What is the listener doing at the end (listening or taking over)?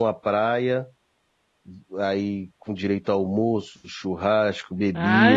taking over